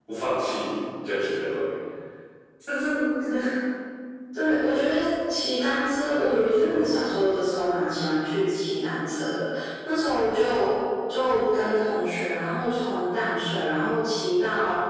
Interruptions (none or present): none